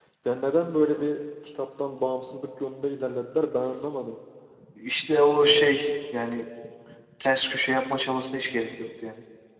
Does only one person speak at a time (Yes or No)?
Yes